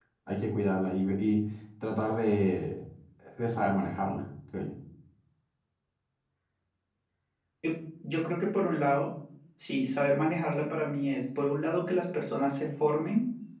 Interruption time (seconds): none

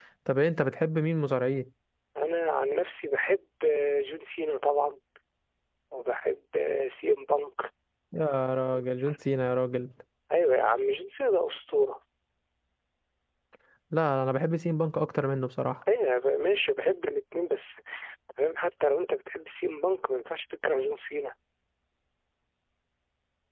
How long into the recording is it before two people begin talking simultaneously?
none

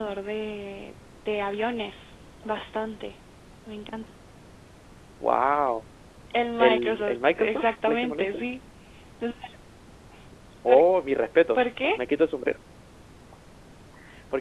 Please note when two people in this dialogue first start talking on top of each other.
6.6 s

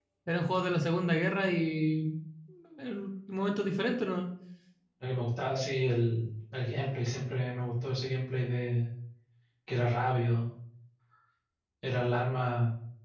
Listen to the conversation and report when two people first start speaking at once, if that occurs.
none

